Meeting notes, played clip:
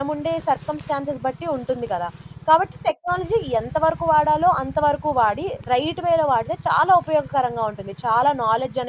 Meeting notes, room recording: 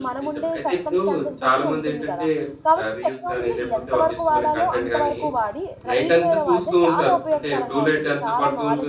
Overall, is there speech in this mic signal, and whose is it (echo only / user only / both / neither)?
both